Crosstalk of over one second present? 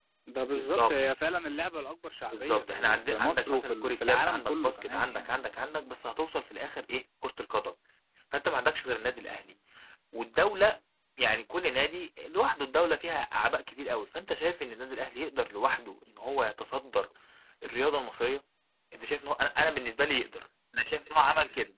Yes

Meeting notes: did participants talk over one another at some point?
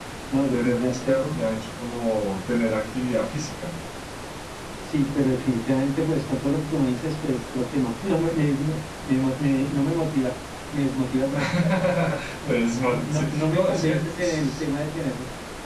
Yes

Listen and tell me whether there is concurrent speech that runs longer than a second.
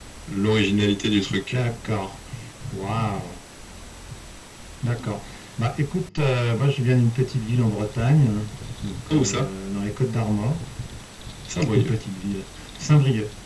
No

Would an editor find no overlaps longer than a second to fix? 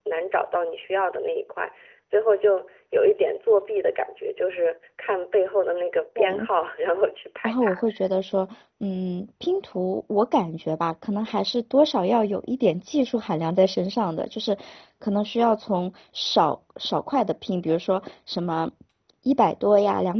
Yes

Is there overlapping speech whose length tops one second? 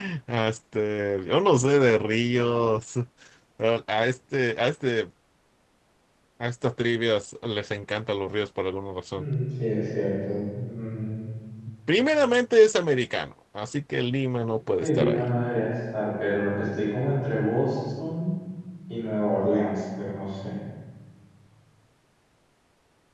No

